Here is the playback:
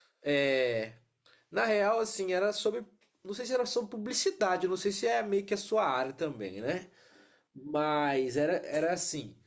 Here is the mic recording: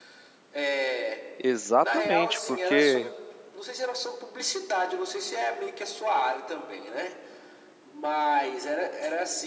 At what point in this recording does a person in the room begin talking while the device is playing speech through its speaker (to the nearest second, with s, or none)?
1 s